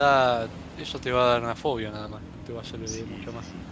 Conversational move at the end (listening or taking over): taking over